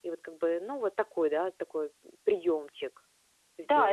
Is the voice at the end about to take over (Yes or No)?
Yes